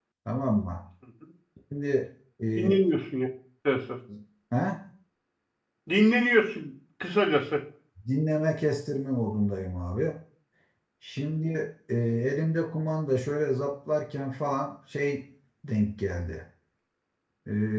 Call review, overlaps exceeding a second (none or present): none